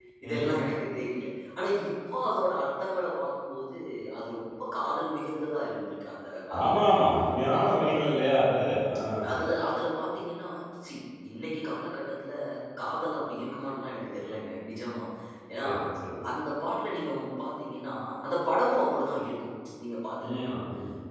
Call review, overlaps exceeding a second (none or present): none